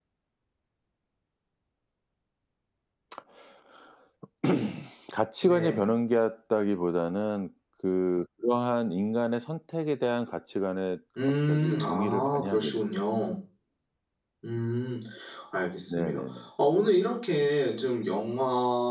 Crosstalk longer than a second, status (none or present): present